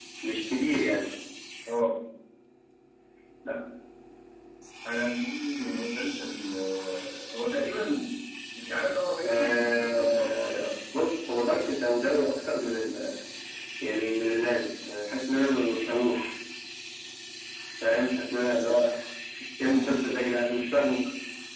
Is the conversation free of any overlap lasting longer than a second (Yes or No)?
No